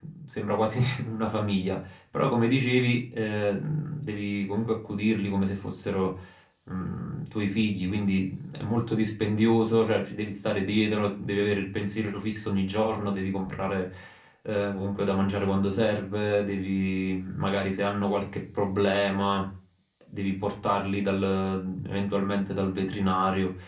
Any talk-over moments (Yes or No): No